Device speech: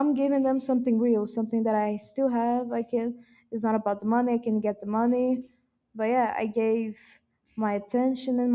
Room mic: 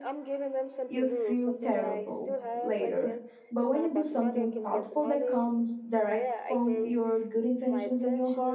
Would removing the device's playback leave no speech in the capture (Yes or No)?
No